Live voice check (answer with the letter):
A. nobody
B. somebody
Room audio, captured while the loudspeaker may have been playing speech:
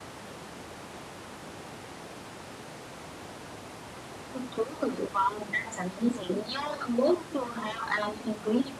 A